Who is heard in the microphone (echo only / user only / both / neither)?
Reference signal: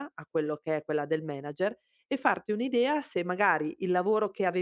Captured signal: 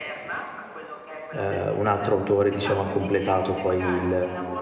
both